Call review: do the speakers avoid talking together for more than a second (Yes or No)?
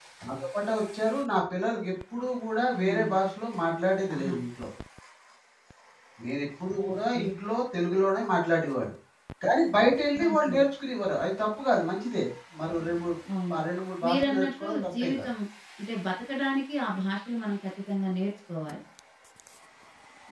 No